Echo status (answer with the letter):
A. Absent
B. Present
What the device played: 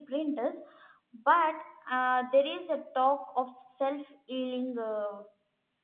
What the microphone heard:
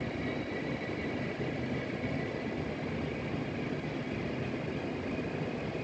A